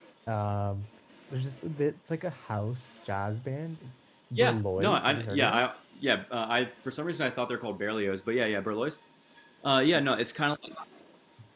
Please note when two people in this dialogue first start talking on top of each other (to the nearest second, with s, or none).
4 s